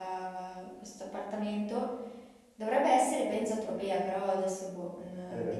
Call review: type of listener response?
taking over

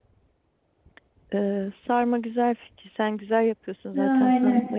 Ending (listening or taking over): listening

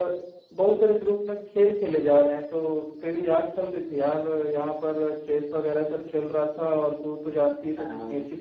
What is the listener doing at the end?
taking over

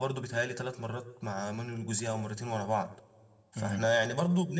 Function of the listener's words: listening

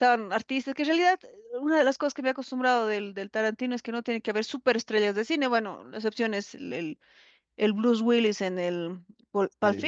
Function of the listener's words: listening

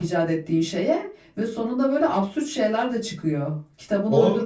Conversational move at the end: taking over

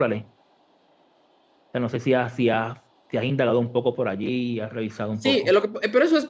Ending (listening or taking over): taking over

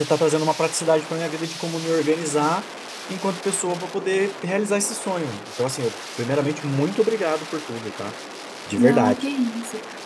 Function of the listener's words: taking over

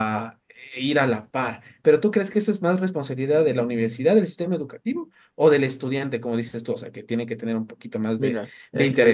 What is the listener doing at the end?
taking over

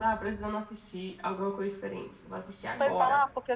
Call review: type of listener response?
taking over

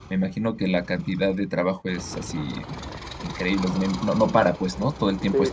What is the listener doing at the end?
taking over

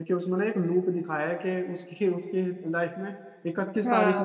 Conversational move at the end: taking over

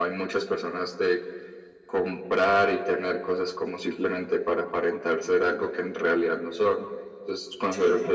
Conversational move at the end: listening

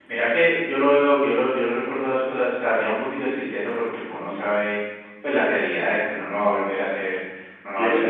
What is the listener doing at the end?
listening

